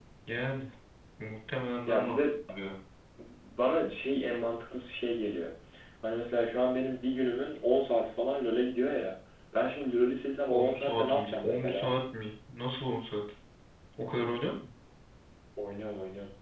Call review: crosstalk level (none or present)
present